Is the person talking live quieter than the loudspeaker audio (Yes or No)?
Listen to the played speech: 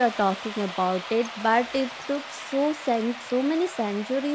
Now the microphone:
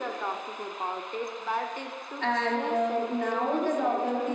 No